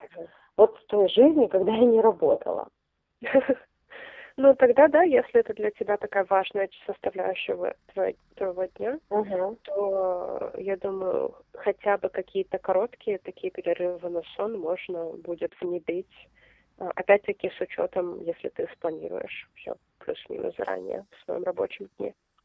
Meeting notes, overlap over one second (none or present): none